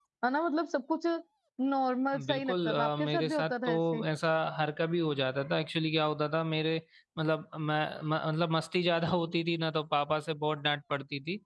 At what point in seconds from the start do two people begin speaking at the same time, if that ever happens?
2.3 s

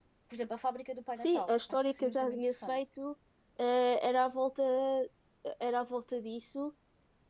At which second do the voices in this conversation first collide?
1.2 s

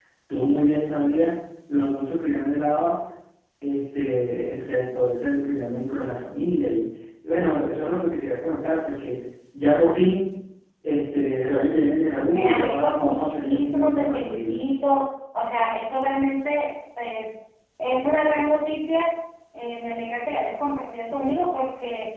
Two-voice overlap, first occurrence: 12.3 s

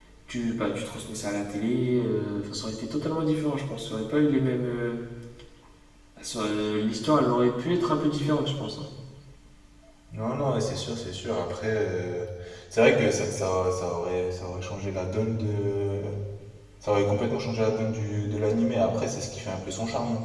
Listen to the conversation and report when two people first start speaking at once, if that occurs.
none

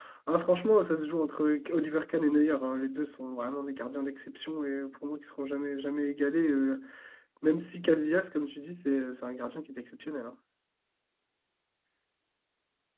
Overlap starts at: none

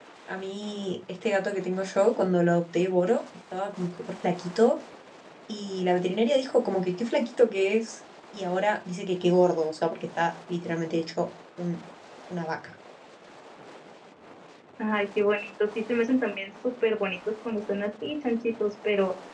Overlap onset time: none

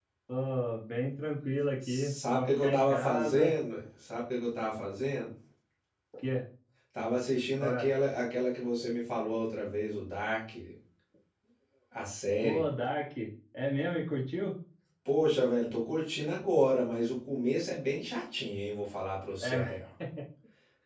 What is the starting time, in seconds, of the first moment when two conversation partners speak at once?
1.9 s

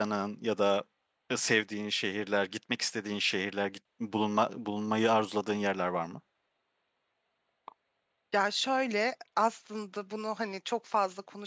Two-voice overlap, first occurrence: none

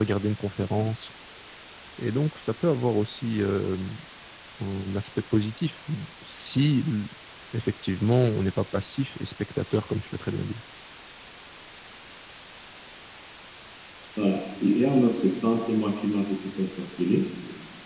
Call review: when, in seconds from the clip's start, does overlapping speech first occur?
none

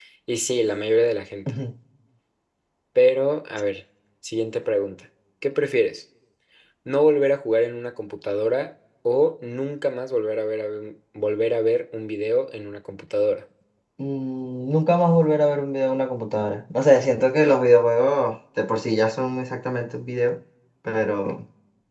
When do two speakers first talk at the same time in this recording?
none

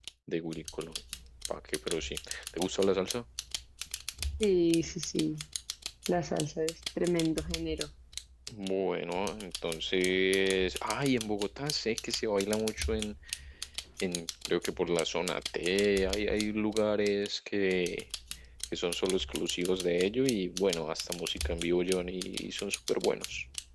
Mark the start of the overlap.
none

